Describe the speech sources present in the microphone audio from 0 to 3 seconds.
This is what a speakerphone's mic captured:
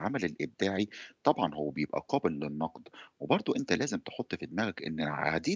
user only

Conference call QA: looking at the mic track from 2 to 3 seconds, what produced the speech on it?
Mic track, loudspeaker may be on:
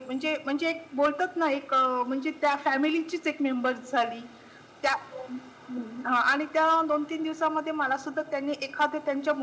echo only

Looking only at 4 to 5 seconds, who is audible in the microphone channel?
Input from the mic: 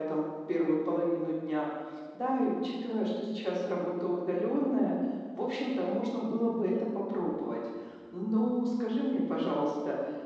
echo only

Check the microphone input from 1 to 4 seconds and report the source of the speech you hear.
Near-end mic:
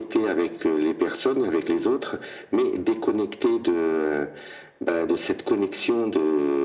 echo only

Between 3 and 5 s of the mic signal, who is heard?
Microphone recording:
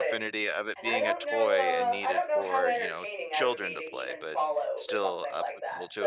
both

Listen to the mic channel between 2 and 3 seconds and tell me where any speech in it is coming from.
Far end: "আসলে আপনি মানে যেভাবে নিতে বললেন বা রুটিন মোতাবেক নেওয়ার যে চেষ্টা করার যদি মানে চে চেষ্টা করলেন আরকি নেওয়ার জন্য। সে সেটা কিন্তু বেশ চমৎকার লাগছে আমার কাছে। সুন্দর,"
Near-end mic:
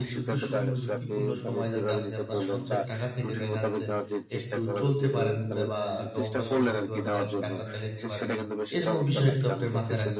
both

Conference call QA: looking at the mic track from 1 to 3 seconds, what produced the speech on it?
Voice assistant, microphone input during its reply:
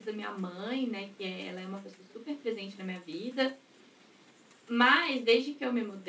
user only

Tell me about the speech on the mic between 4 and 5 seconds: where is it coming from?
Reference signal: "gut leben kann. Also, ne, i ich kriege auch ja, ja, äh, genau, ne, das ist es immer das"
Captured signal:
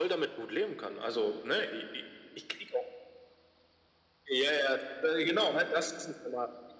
echo only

